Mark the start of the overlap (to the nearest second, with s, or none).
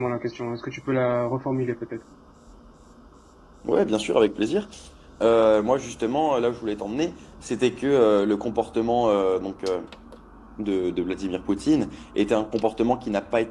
none